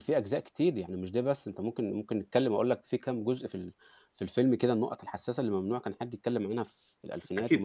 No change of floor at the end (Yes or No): No